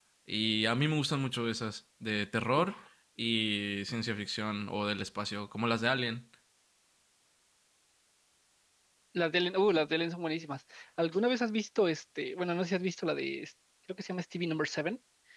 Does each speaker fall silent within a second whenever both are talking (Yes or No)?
Yes